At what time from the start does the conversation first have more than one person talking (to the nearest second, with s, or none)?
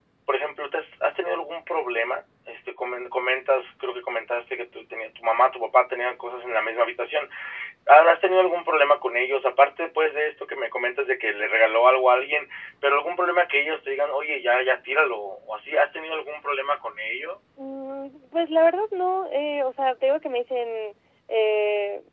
none